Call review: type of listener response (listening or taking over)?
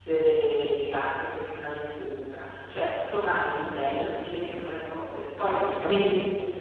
taking over